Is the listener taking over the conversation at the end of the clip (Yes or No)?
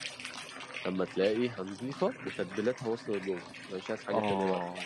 Yes